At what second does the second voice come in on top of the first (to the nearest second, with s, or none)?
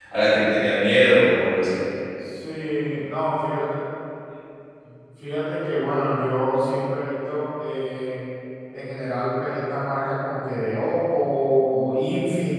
none